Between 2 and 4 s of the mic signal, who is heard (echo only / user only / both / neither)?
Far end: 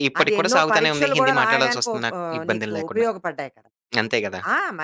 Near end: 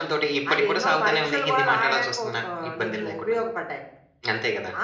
echo only